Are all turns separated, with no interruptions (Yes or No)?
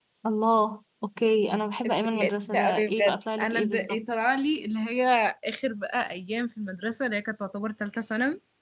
No